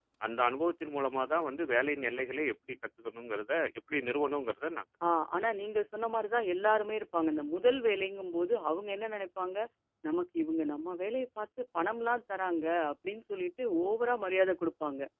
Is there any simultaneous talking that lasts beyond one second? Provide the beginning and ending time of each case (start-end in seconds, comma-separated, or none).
none